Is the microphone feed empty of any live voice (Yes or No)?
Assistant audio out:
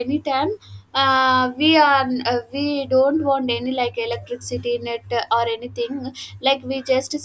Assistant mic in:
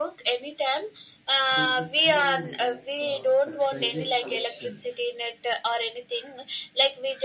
No